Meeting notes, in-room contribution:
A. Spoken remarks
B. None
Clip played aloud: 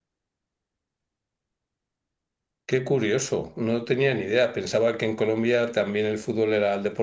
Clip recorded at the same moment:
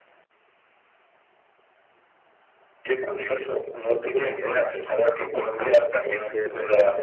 A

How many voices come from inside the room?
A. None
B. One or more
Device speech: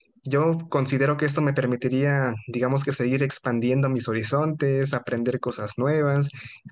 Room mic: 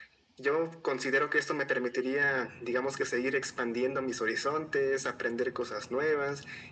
A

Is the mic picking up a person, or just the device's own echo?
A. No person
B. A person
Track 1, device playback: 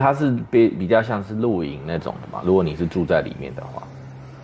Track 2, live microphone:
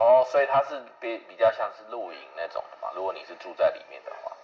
A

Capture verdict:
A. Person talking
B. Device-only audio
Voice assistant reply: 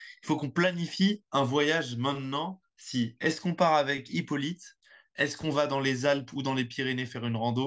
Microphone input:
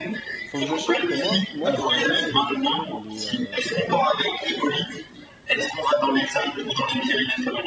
A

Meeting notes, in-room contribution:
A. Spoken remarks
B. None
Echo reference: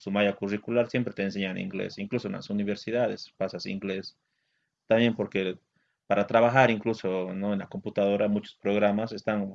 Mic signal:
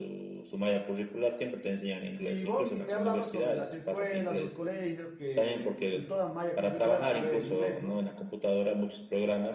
A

